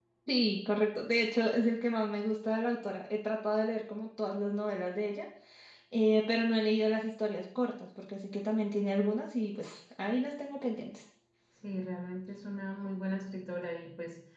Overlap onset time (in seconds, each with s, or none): none